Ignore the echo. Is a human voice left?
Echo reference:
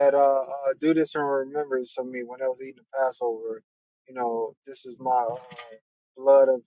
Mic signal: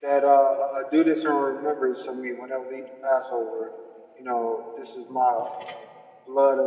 No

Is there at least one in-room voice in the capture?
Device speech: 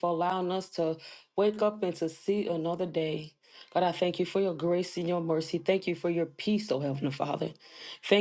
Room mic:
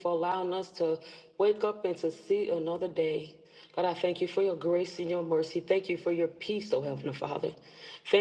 No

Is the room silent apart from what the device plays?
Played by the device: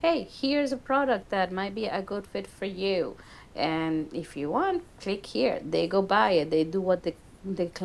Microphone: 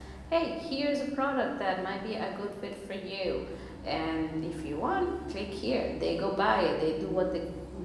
Yes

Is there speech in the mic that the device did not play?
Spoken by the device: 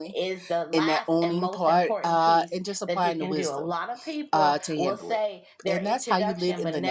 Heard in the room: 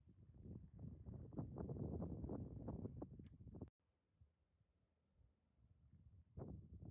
No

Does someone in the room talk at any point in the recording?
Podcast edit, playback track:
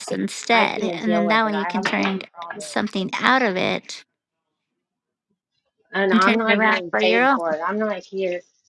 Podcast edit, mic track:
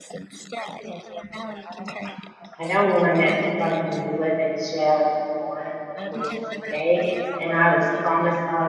Yes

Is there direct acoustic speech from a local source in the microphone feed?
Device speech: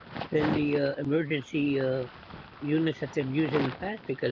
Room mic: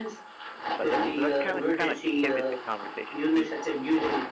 Yes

